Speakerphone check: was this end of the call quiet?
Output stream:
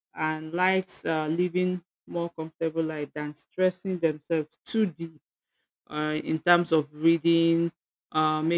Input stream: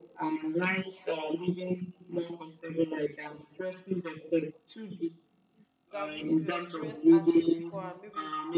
No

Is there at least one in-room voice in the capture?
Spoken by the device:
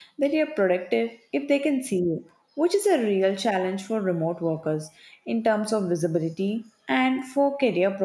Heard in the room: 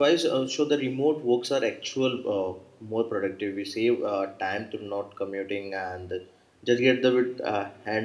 Yes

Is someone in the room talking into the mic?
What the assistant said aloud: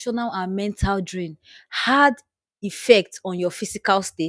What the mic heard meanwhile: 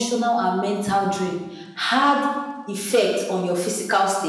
No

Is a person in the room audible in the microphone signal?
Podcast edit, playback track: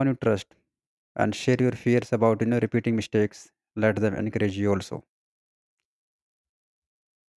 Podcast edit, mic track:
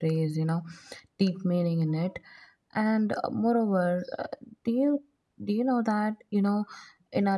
Yes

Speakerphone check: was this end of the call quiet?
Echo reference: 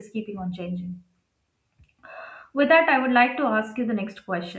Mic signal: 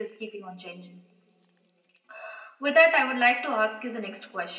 Yes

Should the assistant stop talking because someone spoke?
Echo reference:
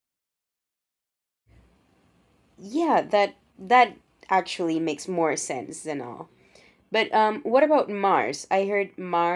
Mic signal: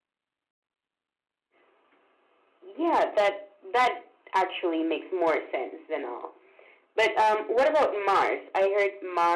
No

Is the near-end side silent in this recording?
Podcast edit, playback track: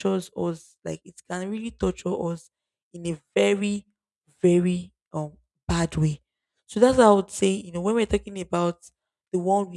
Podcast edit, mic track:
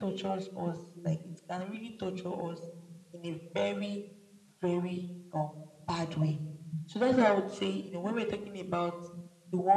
Yes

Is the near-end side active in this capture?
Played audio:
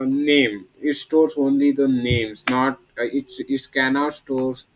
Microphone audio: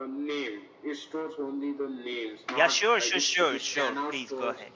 Yes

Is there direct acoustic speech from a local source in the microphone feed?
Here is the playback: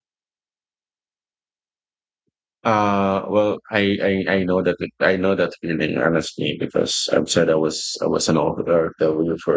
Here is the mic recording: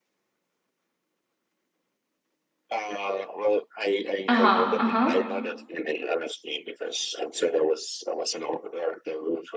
Yes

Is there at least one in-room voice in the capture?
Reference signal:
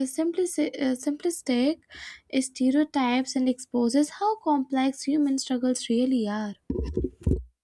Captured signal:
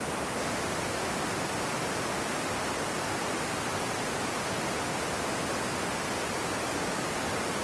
No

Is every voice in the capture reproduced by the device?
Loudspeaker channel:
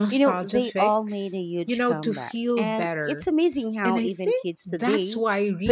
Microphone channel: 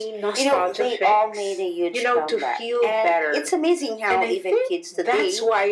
Yes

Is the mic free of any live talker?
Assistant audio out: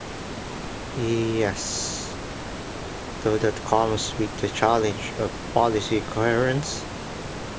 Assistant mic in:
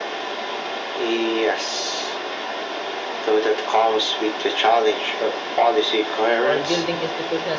No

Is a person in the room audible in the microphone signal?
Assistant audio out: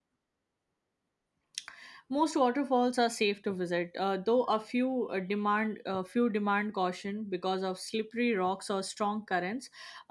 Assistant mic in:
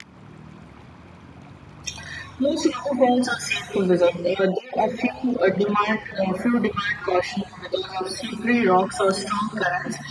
No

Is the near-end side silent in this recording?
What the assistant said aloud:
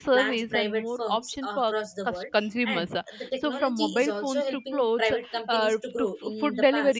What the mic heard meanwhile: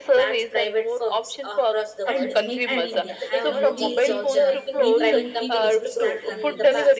No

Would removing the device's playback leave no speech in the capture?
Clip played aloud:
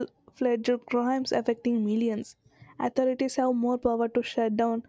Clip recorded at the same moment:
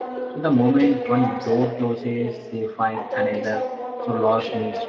No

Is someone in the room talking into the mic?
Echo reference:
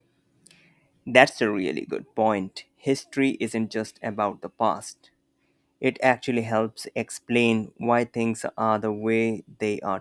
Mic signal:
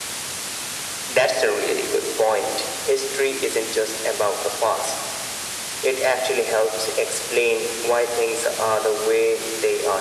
No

